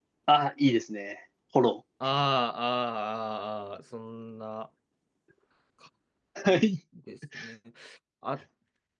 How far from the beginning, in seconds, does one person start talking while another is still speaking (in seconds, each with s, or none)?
none